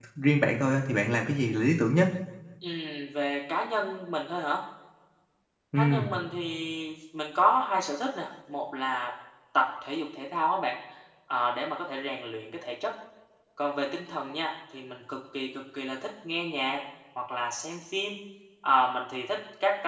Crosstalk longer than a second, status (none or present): none